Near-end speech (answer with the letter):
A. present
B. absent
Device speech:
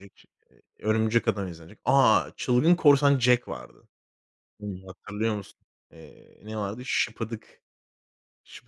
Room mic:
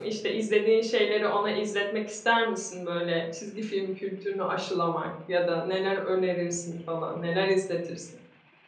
A